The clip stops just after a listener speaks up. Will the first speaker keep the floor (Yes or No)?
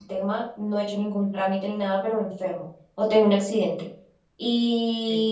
Yes